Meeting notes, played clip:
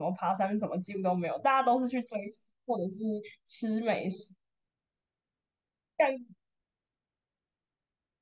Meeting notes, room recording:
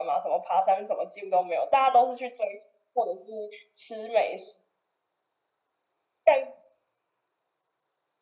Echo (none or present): present